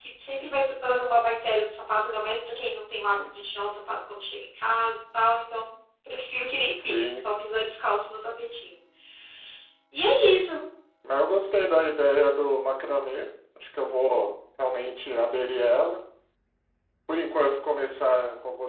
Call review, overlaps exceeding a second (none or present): none